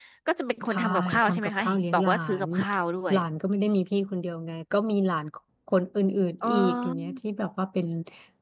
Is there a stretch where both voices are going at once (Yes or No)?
Yes